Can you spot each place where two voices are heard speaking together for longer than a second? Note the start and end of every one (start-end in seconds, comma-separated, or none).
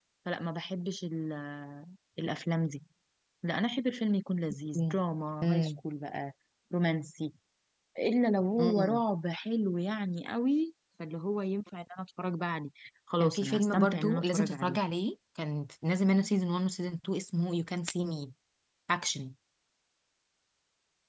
13.2-14.8